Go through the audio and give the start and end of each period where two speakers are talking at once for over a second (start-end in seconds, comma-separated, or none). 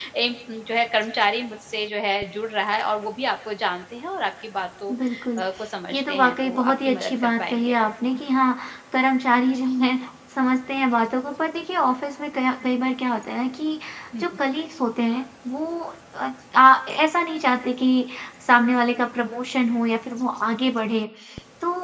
5.9-7.9